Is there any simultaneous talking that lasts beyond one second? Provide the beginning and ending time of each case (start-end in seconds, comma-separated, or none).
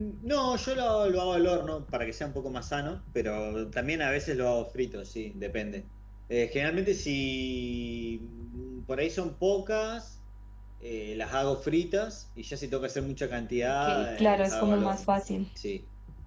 13.6-15.1